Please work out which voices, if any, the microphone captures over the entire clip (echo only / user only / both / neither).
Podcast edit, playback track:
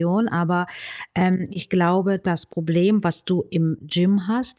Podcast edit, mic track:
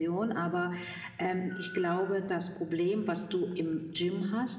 echo only